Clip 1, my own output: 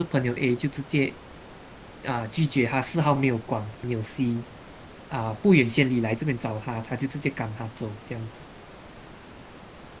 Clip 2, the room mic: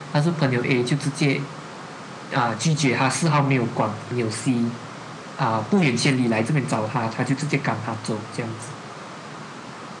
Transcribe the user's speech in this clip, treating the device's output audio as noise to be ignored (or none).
none